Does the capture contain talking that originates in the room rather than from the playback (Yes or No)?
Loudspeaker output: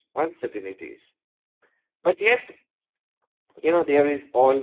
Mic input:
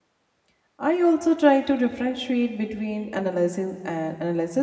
Yes